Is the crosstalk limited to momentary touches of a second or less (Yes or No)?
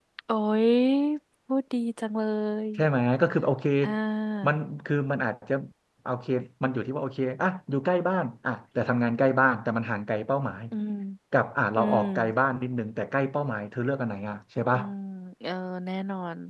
Yes